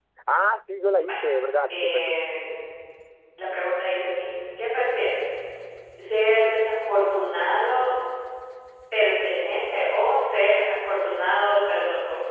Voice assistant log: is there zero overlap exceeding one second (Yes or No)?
Yes